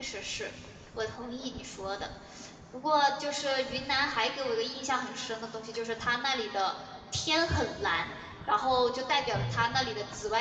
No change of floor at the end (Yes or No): Yes